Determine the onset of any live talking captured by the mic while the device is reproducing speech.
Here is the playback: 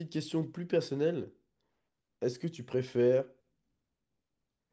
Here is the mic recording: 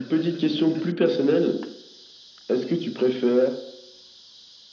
none

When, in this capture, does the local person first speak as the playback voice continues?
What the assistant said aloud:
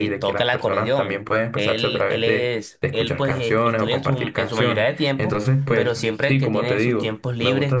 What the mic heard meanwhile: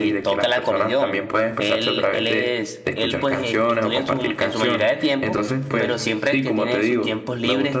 none

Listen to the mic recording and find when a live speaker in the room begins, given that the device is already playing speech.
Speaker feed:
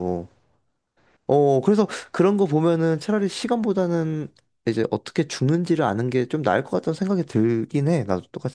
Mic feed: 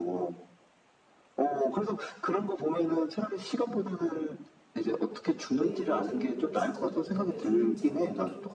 5.5 s

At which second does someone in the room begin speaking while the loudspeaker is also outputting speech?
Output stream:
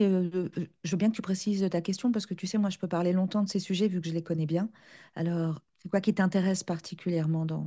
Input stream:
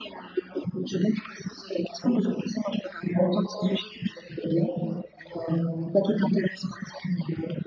none

